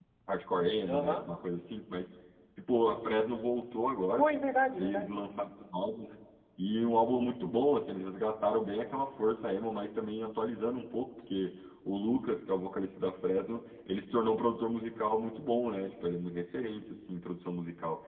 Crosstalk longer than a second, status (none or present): none